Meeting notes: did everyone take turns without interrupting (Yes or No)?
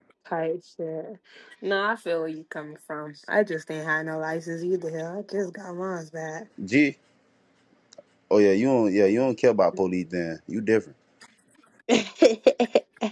Yes